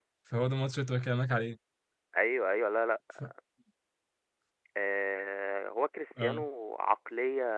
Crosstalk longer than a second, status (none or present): none